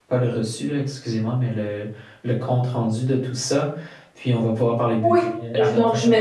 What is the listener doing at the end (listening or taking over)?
taking over